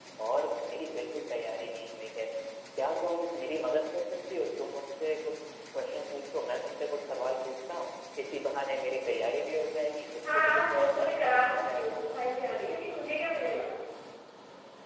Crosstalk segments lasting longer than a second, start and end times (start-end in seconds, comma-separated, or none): 10.3-12.0